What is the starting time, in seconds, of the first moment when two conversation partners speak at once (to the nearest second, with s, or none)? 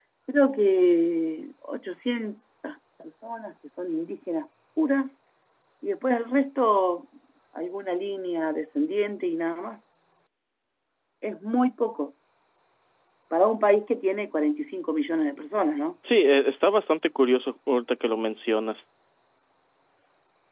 none